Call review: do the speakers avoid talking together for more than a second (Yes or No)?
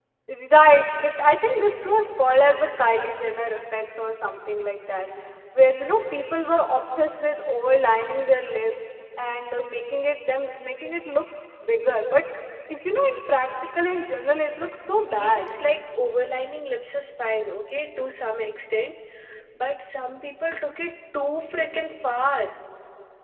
Yes